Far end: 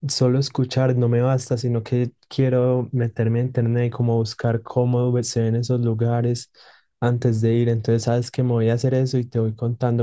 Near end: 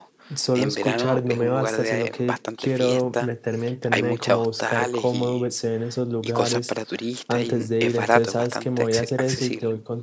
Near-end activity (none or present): present